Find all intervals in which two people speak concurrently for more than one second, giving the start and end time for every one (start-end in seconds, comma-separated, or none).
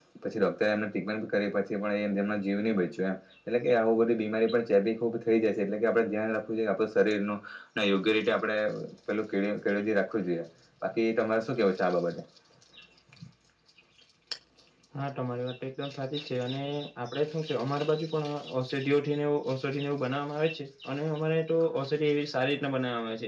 none